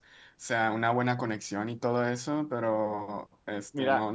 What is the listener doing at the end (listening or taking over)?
listening